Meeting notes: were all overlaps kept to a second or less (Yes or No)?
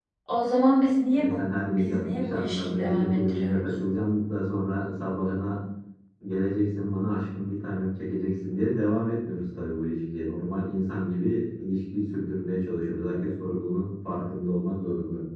No